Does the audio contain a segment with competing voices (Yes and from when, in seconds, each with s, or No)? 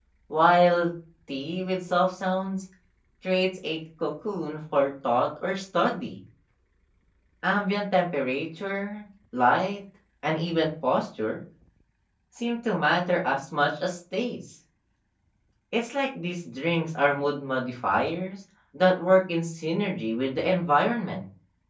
No